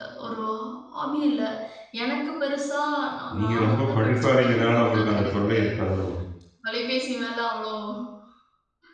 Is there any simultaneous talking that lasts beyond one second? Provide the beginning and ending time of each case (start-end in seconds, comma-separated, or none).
3.4-5.5